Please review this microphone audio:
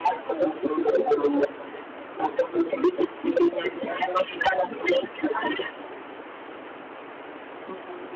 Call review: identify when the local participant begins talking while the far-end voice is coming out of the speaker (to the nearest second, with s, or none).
none